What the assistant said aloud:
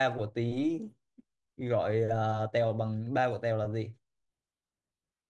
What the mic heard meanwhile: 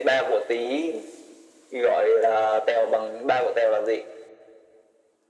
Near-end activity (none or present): none